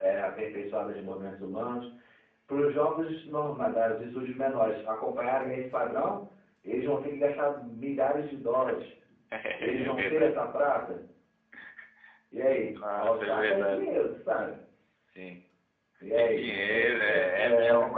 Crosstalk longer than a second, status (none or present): present